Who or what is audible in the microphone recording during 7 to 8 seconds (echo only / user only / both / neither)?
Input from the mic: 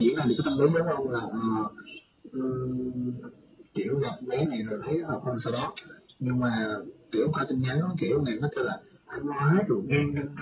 echo only